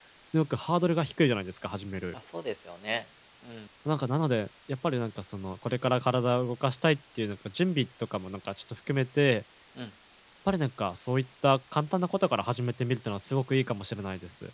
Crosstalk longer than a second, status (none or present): none